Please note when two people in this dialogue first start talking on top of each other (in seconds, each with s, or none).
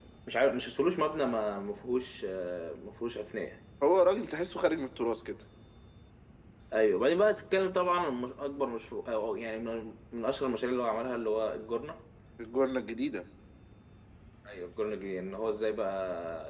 none